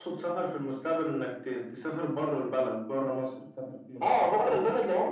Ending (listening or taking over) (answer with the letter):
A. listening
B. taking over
B